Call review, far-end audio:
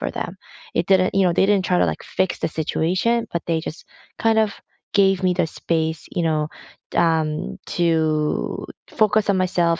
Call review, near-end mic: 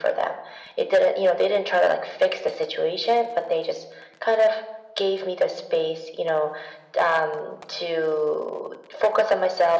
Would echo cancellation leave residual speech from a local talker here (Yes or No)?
No